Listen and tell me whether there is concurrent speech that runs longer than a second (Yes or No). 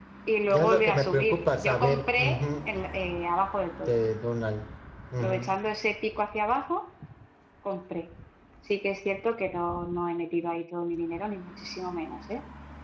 Yes